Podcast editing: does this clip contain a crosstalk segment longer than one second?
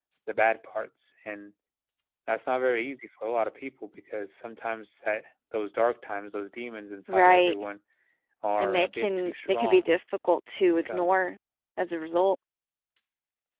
Yes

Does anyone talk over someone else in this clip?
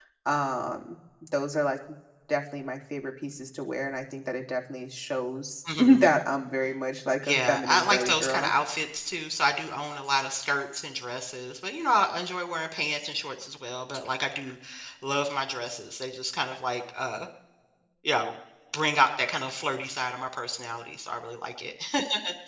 Yes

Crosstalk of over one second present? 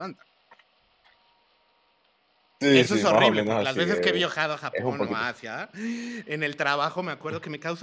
Yes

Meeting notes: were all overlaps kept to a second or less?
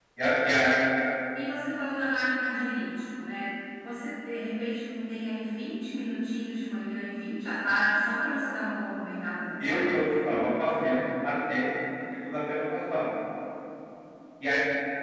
Yes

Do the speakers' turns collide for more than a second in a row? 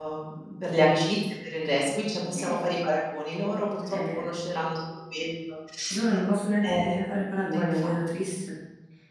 No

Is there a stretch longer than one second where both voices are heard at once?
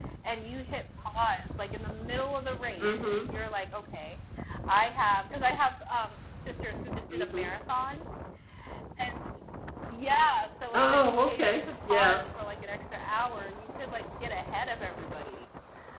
Yes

